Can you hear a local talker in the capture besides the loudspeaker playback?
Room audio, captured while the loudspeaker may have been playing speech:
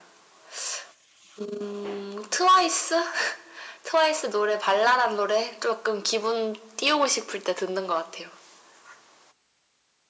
No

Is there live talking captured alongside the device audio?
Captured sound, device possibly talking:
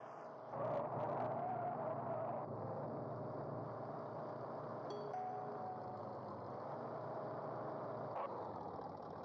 No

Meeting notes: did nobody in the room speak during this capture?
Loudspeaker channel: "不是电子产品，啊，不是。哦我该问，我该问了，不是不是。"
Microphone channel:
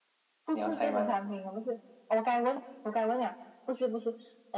No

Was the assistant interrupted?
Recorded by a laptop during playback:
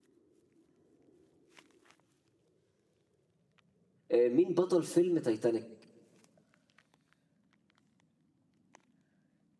Yes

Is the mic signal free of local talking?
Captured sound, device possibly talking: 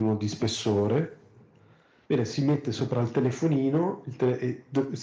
Yes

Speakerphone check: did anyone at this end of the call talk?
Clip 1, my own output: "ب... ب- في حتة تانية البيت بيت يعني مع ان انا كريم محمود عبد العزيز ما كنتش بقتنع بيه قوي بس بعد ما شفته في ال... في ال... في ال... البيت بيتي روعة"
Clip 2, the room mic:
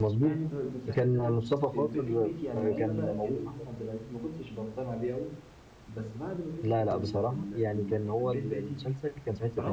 Yes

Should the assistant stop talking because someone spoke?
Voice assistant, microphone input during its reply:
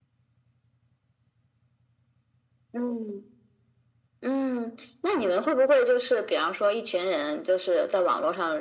No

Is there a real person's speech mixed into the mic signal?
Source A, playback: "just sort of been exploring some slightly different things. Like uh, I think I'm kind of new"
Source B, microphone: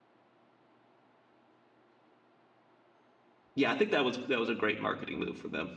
Yes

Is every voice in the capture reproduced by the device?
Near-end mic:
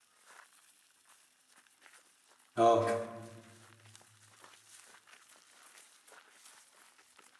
No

